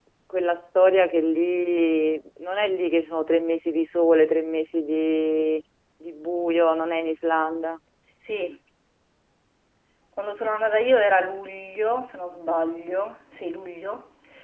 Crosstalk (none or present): none